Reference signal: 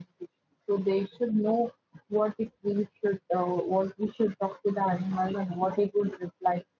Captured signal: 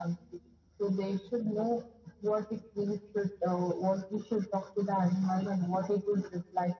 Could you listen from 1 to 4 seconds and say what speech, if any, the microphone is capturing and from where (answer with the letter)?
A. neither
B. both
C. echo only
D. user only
C